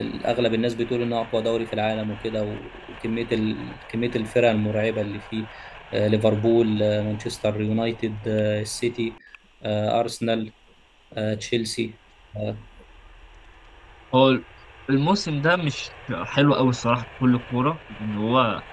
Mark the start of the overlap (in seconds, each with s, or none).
none